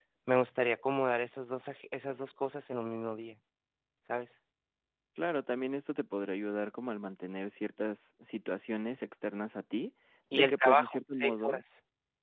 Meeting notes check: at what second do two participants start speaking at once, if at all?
10.3 s

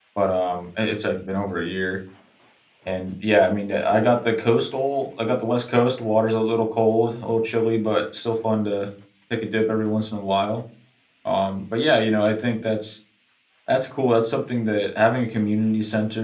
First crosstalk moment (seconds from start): none

